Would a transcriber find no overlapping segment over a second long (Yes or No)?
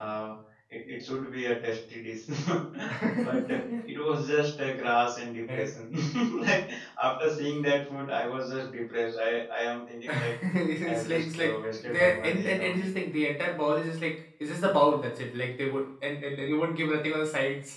No